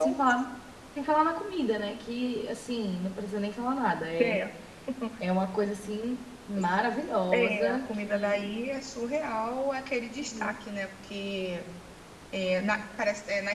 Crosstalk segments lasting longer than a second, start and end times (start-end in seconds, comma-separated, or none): 7.3-8.6